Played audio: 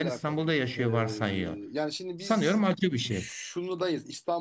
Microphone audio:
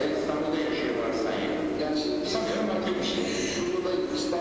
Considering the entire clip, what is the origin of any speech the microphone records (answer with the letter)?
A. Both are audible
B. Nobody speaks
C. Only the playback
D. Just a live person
C